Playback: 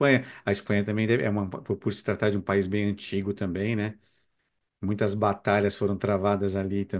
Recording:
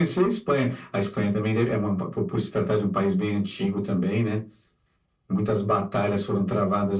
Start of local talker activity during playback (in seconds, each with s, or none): none